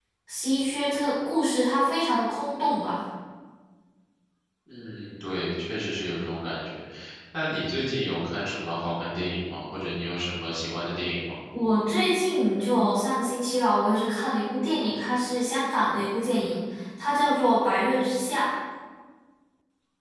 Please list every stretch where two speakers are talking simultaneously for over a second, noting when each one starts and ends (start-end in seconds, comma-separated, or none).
none